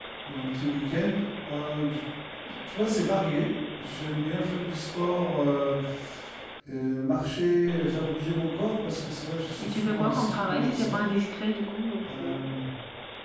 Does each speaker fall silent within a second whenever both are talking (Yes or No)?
No